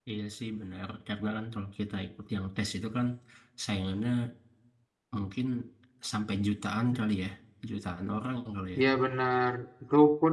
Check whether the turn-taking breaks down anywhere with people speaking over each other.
No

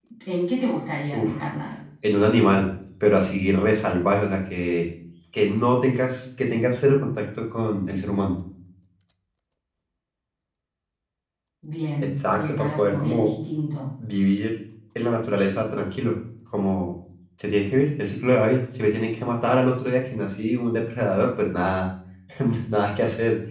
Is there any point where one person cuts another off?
Yes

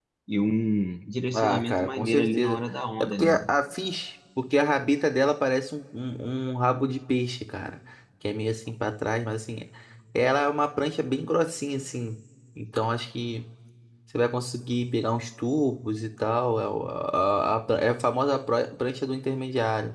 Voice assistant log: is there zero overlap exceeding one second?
No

